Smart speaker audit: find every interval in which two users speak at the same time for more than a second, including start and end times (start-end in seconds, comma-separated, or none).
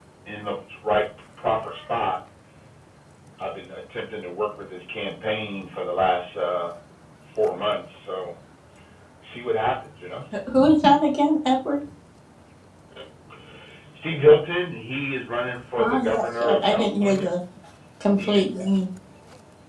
15.8-17.3